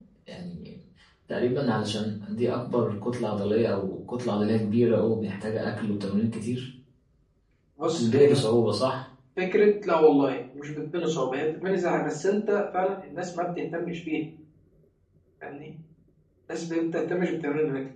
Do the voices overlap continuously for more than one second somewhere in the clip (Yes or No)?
No